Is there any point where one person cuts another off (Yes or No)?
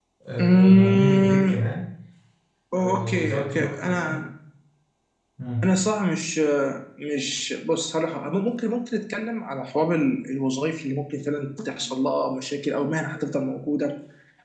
Yes